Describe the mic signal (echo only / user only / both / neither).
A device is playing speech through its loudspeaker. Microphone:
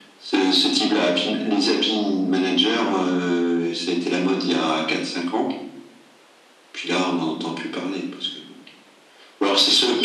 echo only